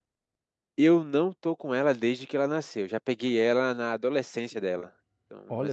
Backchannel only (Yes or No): Yes